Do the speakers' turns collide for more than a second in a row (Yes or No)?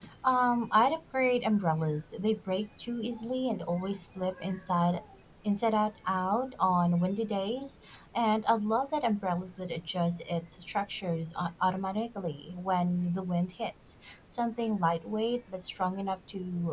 No